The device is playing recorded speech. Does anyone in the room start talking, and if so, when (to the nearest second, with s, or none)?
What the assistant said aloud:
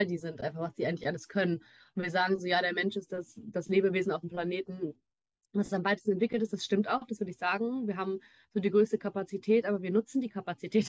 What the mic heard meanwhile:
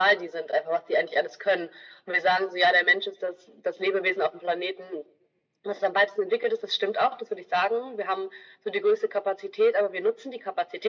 none